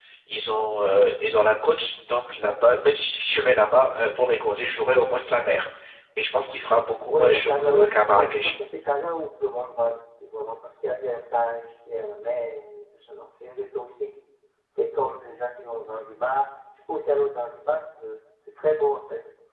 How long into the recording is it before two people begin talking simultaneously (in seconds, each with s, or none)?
7.1 s